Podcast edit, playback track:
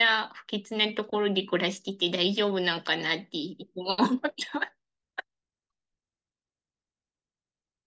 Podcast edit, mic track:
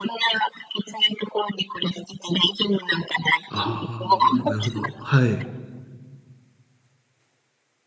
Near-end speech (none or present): present